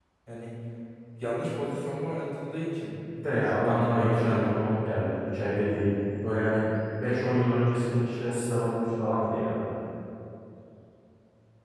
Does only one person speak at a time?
No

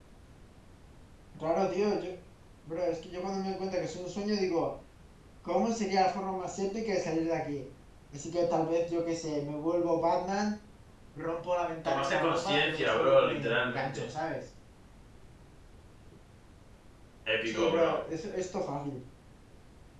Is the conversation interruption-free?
No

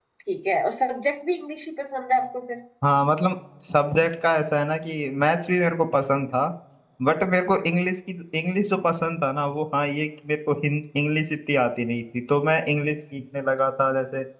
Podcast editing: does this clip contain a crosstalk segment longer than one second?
No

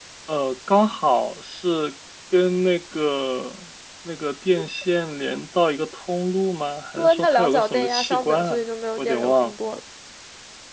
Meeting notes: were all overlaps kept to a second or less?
No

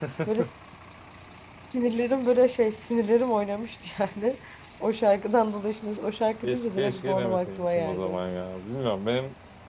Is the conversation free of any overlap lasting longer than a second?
No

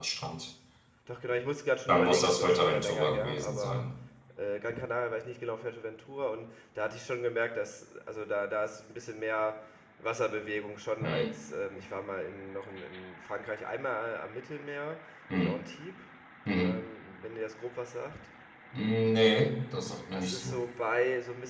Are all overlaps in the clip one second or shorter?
No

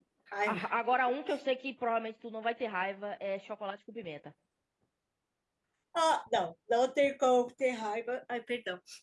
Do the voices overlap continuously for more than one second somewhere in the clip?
No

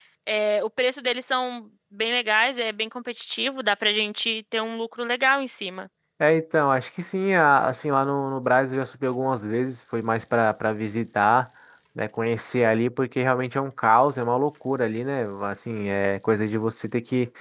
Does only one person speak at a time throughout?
Yes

